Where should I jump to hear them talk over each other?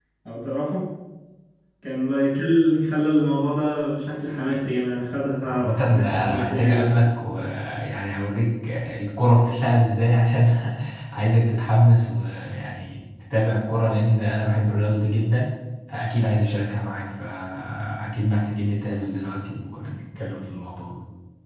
5 s

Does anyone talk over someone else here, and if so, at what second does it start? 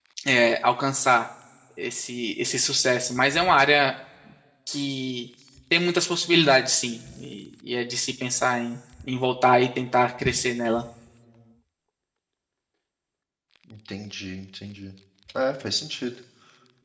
none

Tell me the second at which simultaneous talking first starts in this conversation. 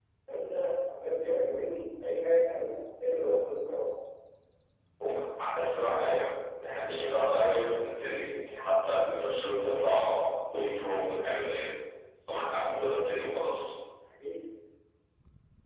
none

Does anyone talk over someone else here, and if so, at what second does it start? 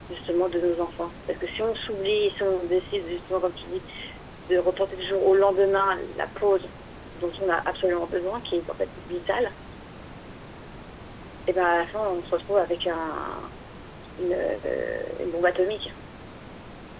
none

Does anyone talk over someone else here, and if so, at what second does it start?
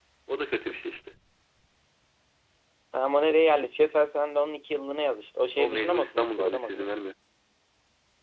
6 s

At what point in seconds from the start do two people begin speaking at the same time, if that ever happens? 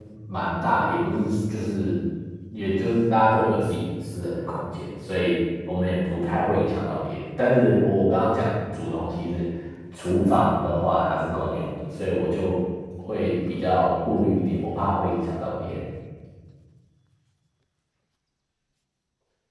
none

